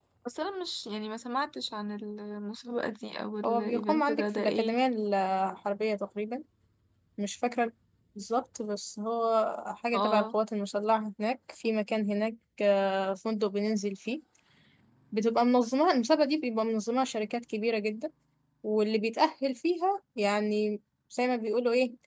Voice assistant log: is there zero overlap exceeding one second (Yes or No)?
No